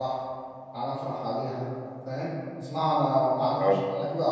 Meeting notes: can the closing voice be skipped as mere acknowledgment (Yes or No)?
Yes